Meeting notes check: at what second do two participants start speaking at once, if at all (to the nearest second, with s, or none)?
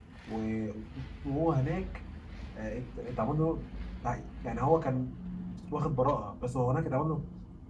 none